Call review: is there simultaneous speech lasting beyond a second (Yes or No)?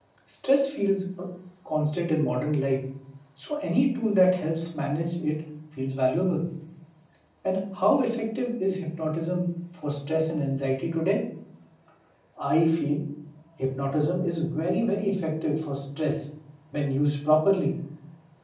No